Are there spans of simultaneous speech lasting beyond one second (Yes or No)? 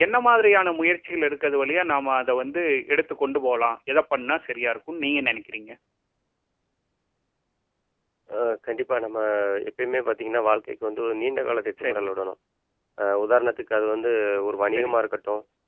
No